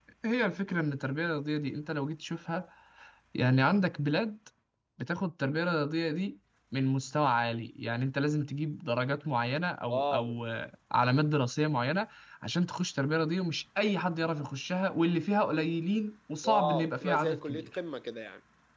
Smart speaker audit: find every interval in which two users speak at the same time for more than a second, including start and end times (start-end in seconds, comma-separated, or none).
16.4-17.7